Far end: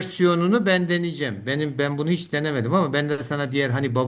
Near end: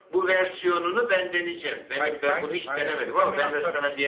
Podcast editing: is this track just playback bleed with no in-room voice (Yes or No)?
No